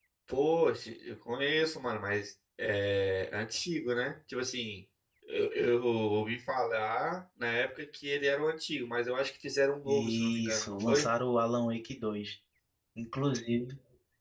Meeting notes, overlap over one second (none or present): present